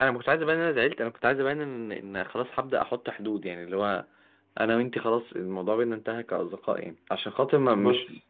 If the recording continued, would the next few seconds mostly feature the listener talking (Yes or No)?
No